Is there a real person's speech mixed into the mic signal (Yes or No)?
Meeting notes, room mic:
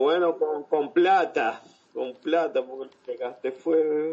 No